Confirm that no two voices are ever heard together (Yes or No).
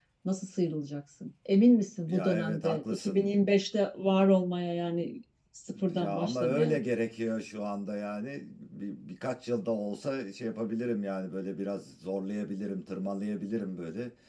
No